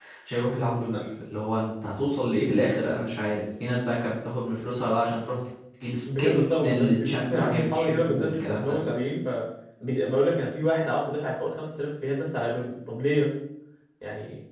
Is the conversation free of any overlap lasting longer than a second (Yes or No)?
No